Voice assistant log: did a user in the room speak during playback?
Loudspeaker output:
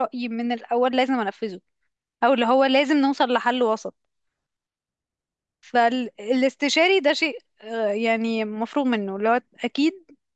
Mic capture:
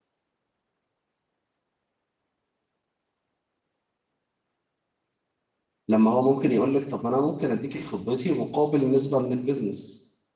Yes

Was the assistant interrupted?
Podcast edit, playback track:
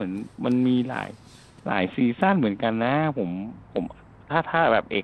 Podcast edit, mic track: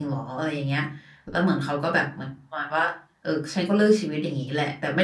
Yes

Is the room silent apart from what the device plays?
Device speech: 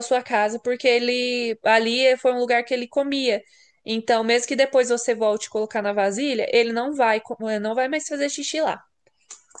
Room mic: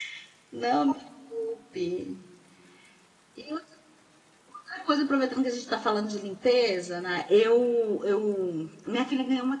No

